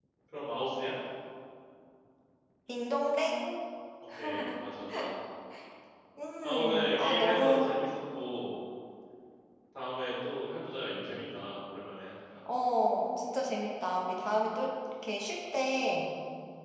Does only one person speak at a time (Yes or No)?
No